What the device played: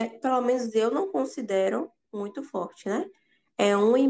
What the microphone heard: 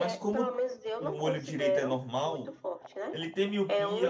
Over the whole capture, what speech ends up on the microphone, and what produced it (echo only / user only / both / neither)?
both